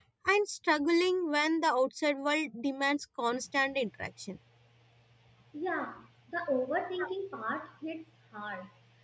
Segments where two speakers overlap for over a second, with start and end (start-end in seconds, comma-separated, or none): none